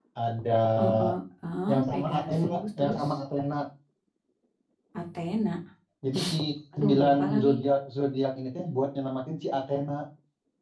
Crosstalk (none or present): present